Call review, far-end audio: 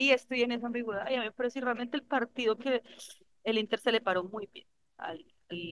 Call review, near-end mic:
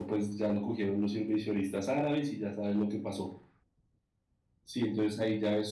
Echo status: none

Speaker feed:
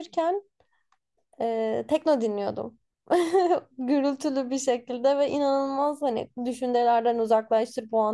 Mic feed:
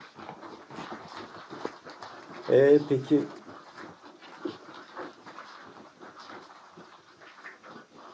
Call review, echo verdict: none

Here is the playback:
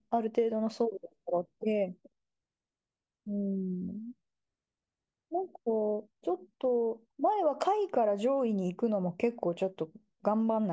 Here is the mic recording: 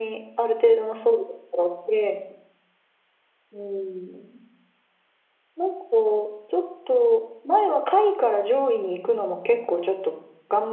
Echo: present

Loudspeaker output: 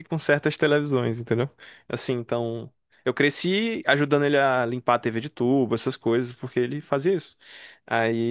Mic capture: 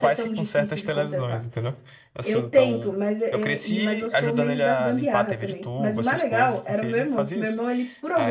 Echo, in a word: present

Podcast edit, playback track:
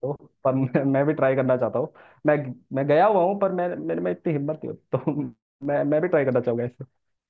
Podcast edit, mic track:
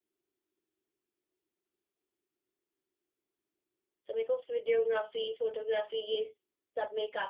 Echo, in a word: none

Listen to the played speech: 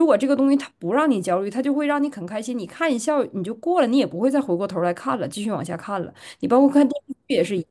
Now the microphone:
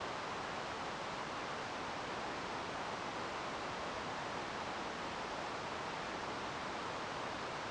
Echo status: none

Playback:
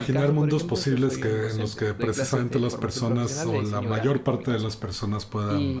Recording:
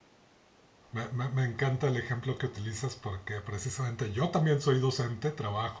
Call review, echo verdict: none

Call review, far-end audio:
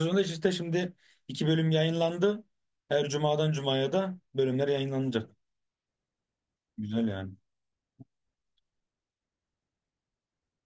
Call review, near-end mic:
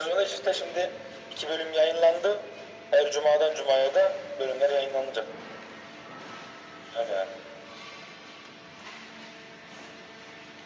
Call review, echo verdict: present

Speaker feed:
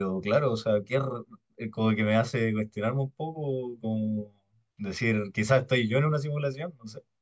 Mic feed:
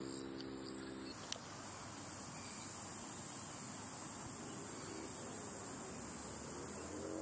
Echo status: none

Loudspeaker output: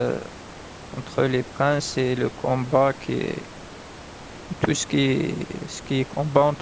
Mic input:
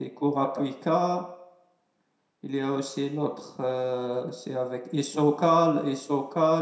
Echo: none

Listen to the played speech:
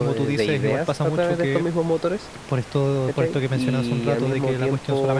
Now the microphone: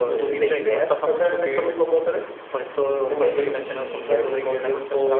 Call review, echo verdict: present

